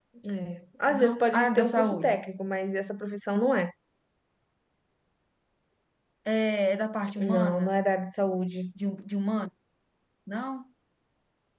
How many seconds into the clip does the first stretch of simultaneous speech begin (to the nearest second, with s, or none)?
1 s